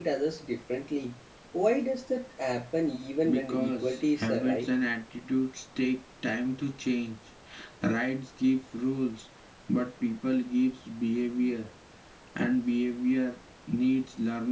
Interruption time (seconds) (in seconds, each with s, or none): 3.2 s